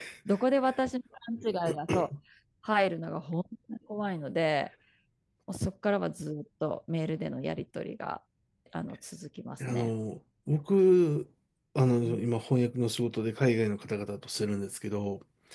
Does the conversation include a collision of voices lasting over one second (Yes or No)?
No